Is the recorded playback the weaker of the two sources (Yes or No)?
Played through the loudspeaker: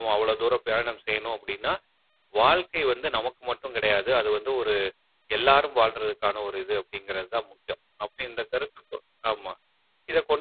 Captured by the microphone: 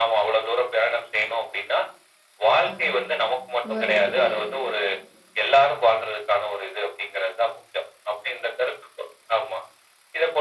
No